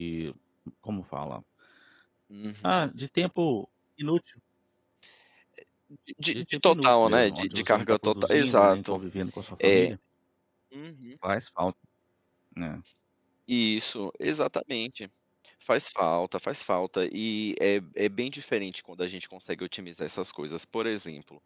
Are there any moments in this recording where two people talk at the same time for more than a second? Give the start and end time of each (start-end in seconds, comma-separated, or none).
6.3-9.0